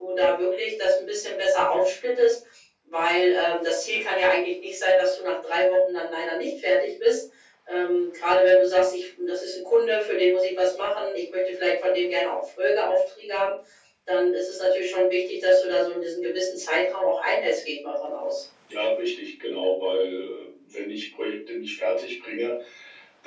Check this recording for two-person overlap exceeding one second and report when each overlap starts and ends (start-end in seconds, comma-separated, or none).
none